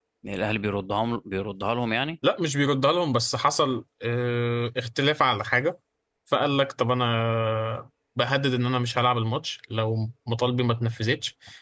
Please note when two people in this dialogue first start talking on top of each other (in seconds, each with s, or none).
none